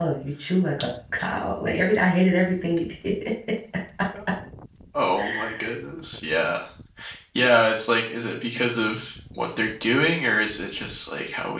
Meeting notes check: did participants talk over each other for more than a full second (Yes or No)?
No